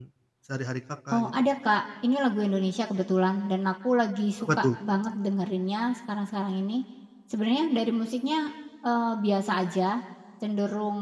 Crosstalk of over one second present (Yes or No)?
No